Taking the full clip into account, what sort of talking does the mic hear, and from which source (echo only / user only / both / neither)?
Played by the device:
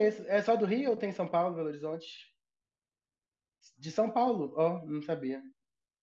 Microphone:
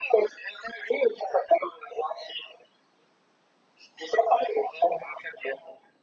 echo only